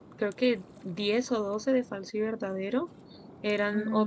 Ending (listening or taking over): listening